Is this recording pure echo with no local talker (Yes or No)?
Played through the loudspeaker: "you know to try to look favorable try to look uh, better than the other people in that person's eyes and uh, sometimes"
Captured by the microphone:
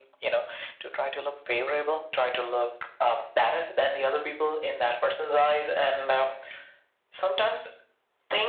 Yes